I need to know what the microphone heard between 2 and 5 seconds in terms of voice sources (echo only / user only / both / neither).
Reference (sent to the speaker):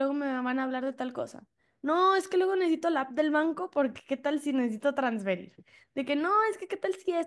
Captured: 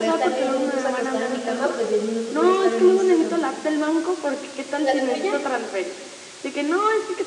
both